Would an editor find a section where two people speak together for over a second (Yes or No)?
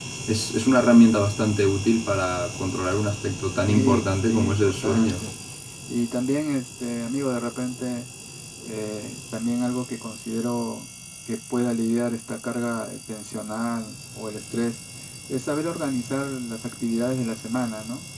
Yes